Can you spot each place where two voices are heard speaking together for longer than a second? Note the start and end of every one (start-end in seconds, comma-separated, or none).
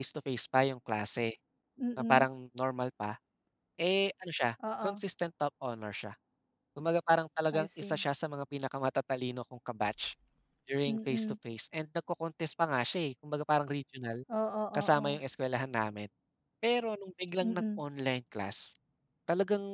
none